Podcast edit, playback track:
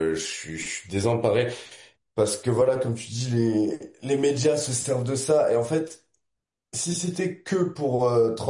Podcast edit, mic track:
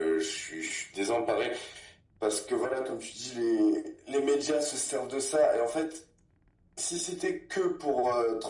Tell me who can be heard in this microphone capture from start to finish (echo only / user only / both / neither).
echo only